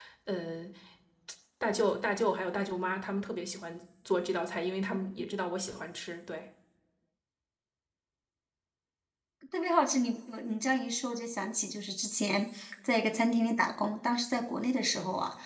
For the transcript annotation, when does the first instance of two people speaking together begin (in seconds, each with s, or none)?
none